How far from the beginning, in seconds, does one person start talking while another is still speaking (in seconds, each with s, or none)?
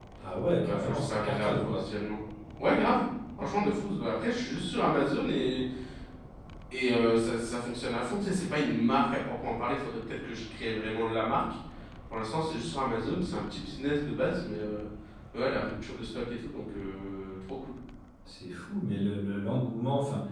0.7 s